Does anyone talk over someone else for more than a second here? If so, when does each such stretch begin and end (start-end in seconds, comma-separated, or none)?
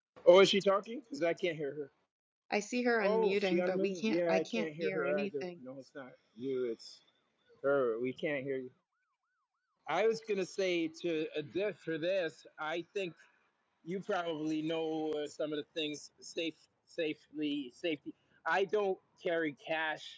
3.0-5.4